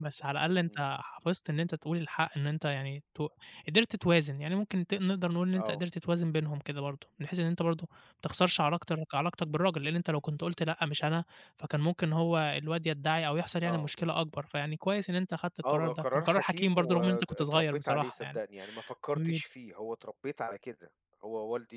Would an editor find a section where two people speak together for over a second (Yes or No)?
Yes